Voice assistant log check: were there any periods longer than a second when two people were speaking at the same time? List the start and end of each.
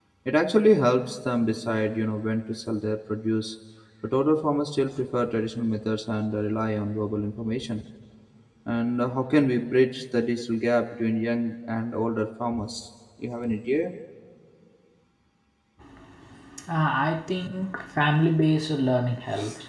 none

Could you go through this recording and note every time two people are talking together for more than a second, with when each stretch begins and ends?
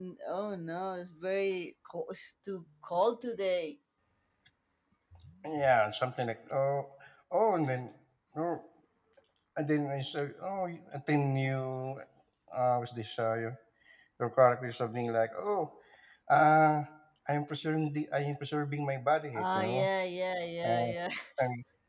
none

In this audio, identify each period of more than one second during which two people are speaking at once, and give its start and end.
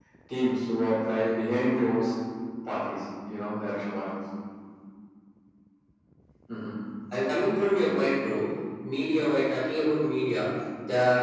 none

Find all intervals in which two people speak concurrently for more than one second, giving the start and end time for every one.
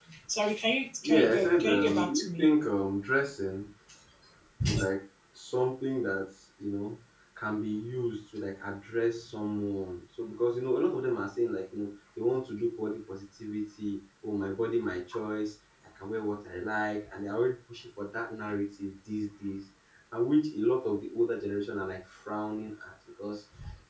1.0-2.5

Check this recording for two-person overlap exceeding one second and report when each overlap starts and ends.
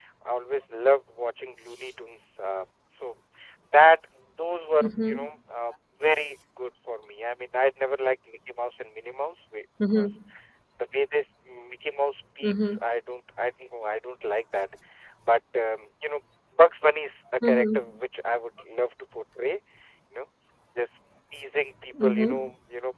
none

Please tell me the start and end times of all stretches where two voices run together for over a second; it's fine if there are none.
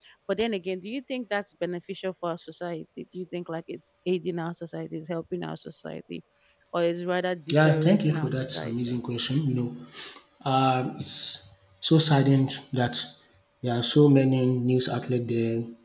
7.5-9.0

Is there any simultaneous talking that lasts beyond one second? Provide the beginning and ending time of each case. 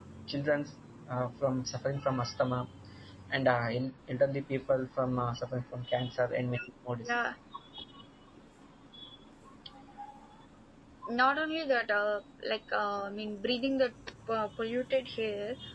none

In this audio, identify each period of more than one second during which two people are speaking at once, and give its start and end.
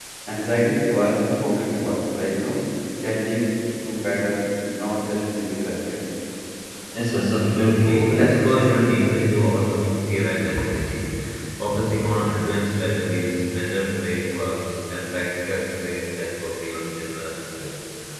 7.8-9.1

